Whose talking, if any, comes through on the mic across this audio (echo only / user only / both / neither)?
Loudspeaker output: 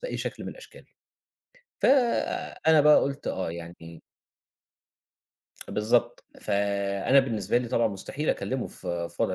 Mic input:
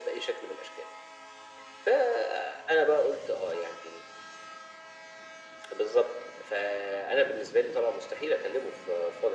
echo only